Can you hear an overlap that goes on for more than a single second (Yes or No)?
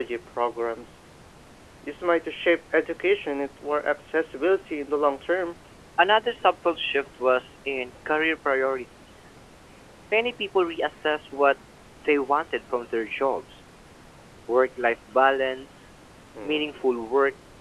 No